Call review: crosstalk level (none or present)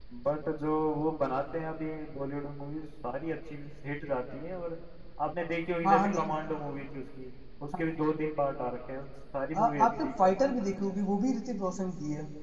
present